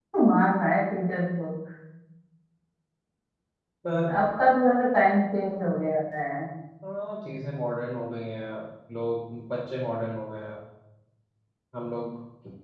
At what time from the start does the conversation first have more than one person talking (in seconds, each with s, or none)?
none